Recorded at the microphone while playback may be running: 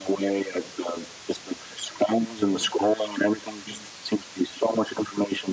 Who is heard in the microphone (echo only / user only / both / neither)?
echo only